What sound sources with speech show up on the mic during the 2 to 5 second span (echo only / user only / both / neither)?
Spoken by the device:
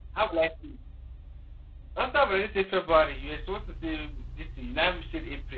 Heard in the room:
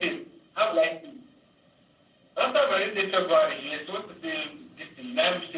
echo only